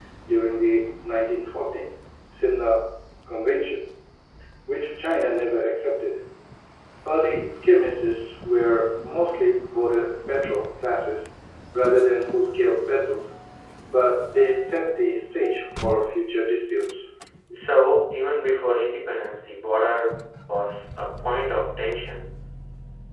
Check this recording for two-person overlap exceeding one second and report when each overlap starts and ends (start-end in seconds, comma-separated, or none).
none